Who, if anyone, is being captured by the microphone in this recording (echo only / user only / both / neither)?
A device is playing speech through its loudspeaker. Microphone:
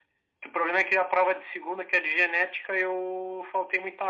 echo only